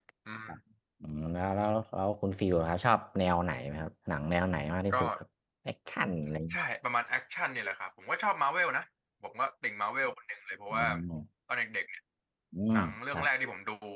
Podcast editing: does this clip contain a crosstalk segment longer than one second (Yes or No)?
No